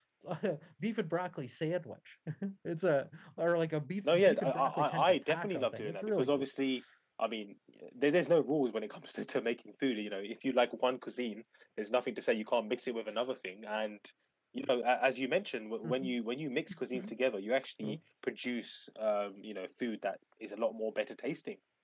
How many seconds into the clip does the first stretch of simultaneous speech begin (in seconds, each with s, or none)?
4.0 s